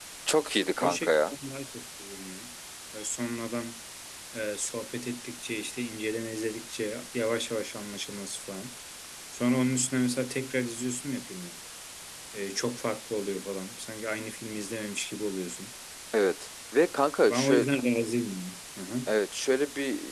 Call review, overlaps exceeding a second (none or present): none